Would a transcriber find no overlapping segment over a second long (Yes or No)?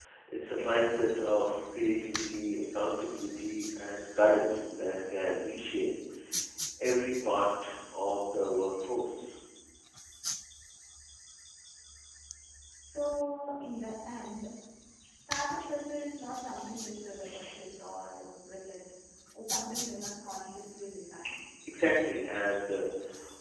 Yes